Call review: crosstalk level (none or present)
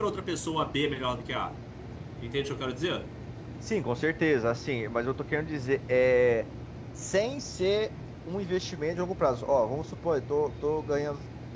none